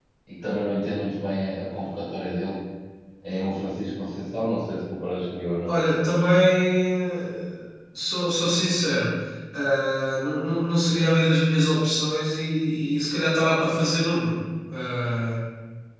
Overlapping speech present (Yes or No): No